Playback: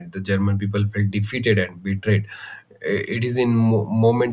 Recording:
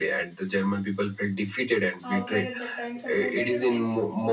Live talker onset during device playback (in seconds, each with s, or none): 2.0 s